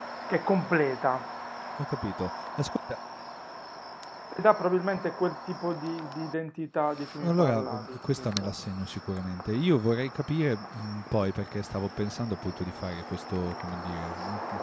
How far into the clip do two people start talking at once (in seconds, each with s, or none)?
7.2 s